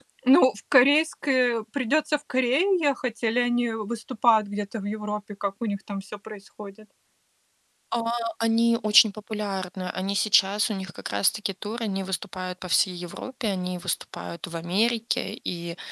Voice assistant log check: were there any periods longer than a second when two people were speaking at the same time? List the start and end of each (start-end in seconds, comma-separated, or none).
none